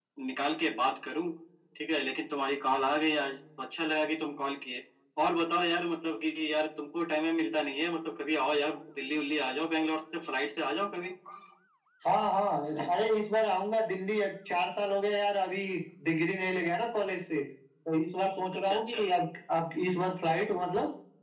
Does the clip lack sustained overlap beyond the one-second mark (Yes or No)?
Yes